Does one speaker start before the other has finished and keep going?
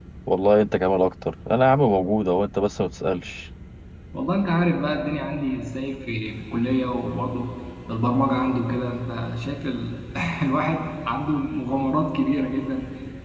No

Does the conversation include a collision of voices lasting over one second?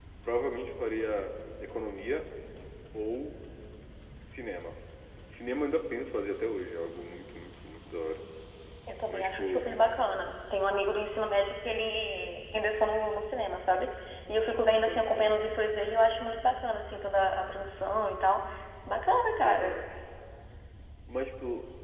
No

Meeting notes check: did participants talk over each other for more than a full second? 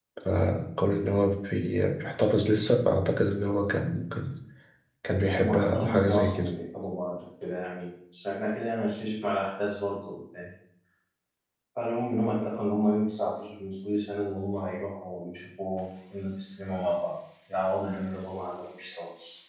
Yes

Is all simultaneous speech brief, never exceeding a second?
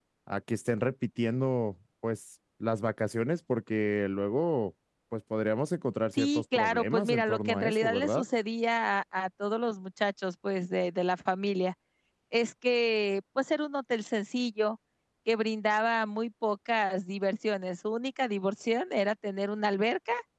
No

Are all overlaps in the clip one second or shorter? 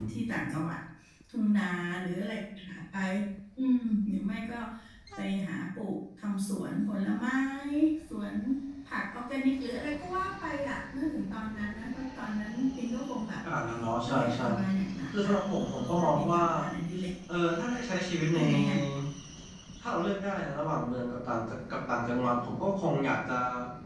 No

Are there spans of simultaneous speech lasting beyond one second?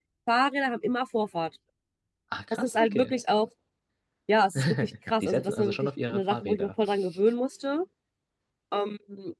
Yes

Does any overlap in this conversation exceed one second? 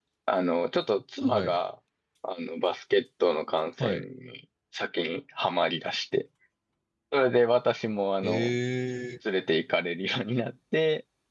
No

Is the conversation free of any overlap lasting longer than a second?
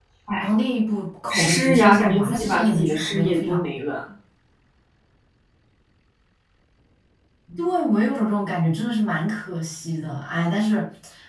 No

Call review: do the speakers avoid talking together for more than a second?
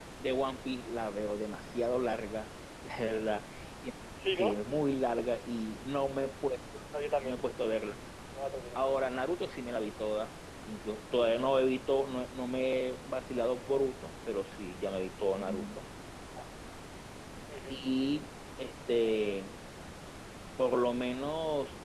Yes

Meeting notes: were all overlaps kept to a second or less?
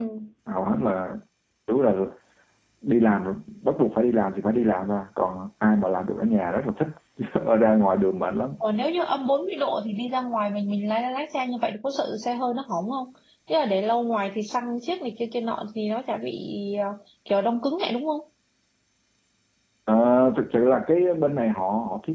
Yes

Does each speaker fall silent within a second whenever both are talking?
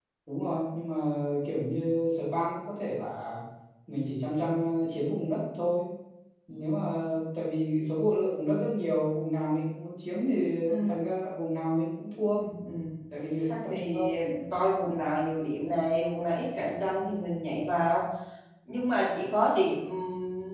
Yes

